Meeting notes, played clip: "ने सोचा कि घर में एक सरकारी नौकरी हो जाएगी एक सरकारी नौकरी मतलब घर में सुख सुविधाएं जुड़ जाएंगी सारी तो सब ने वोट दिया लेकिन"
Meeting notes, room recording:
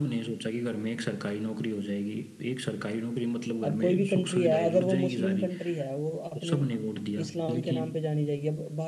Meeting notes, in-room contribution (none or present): present